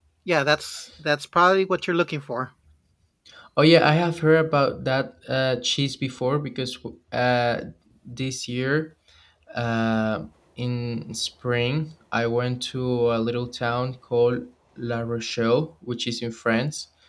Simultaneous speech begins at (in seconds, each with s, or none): none